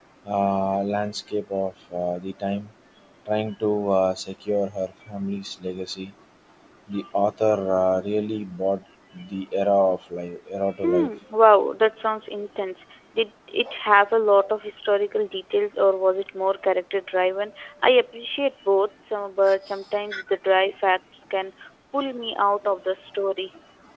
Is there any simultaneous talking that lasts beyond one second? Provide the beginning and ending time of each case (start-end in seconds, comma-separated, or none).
none